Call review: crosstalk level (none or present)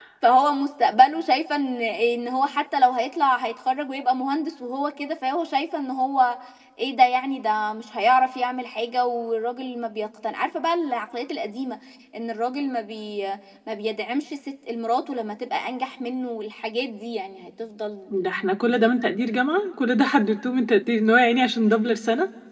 none